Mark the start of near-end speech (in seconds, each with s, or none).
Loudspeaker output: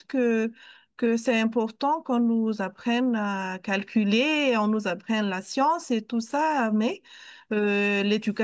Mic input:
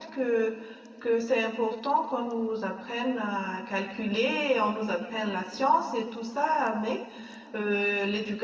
none